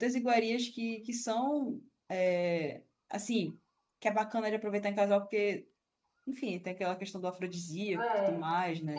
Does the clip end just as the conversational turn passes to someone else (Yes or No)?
Yes